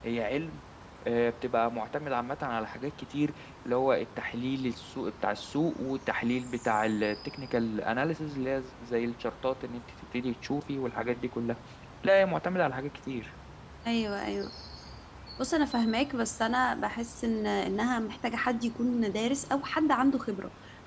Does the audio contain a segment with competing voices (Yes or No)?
No